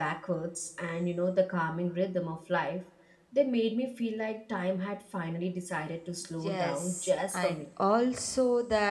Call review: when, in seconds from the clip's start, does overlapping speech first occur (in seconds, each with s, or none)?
6.4 s